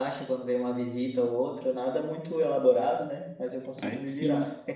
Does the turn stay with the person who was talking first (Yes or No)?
No